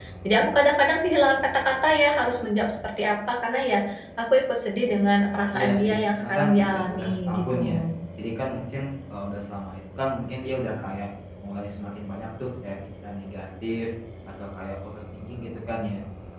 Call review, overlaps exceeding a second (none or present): present